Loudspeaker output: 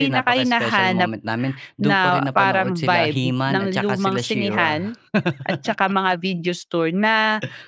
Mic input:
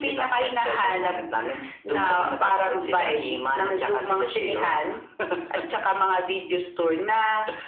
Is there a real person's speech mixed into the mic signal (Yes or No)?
No